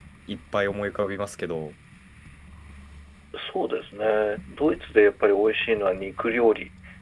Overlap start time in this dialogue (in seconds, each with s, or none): none